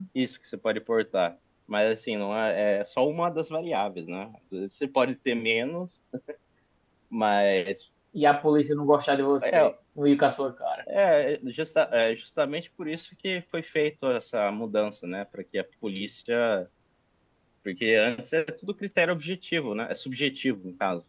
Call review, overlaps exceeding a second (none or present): none